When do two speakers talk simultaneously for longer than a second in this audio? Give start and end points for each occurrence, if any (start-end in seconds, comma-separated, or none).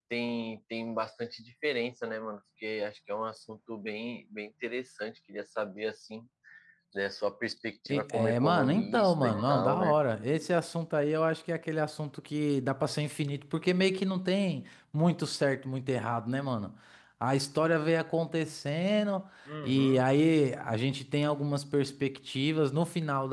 7.9-9.9